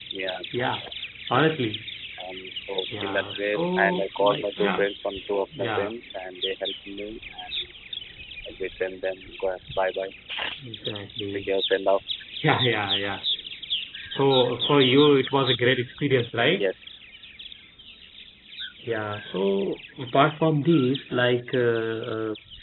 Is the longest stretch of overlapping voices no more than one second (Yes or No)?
No